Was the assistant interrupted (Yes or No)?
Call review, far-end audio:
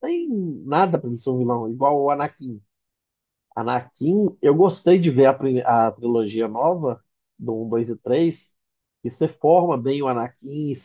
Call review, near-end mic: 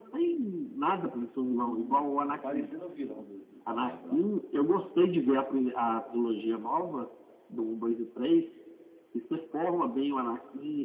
Yes